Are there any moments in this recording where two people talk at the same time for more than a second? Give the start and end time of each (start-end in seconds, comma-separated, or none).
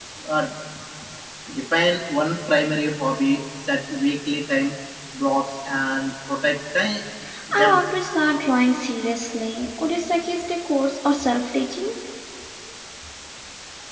none